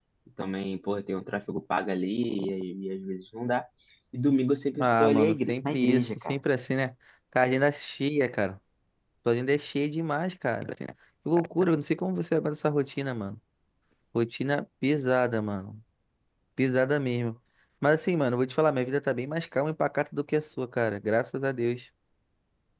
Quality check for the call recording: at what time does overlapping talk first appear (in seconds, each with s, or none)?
4.8 s